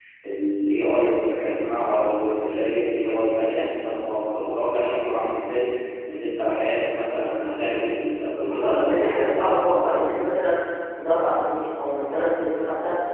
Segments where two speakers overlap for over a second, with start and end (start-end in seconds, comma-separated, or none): 8.6-10.2